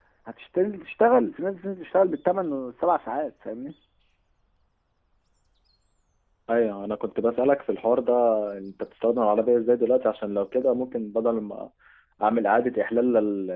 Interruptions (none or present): none